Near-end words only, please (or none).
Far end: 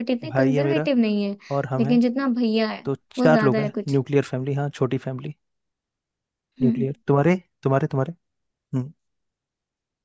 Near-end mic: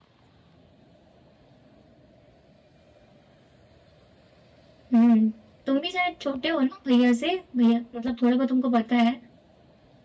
हम्म तुम भी शायद छोटे हो ना भैया से भैया मतलब थोड़ा बहुत तुमको पता है